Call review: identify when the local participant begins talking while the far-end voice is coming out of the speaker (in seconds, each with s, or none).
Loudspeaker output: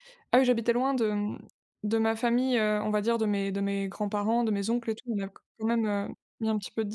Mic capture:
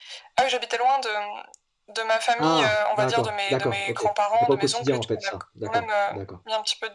2.4 s